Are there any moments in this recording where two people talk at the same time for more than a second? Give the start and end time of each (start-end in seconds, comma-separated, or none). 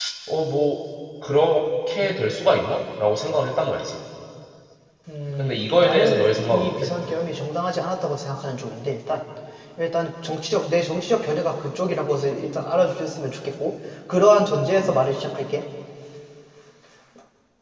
5.4-6.7